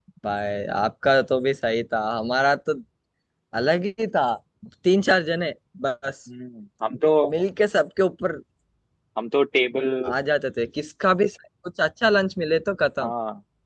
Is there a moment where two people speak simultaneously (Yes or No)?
No